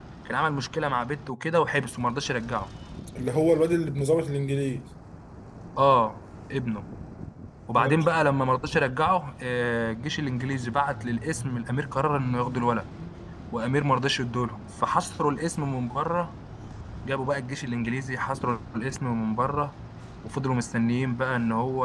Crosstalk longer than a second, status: none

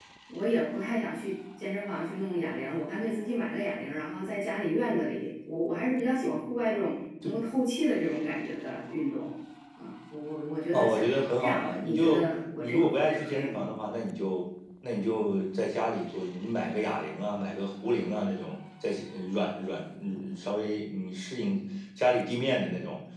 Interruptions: present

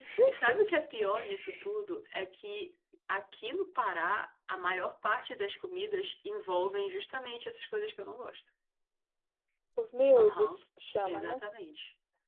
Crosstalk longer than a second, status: none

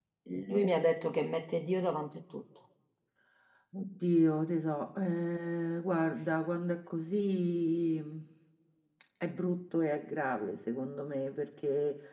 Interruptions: none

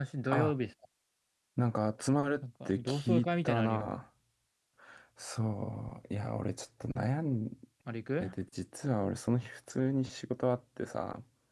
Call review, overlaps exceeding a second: present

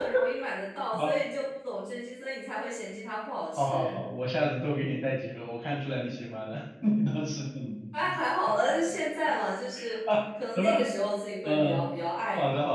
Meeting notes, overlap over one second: none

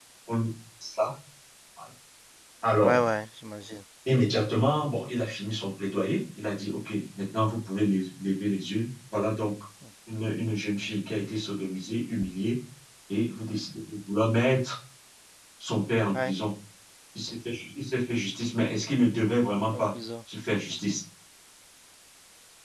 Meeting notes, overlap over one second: none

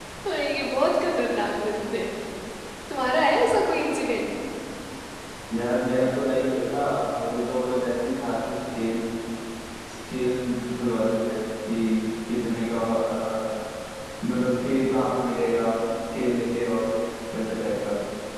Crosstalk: none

